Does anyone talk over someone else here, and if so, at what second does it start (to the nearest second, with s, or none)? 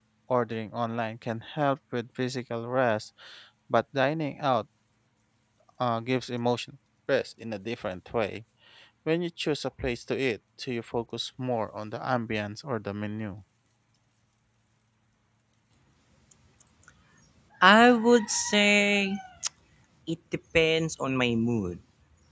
none